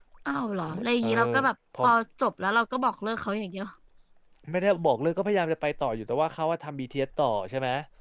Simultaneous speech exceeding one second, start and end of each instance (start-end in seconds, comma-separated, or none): none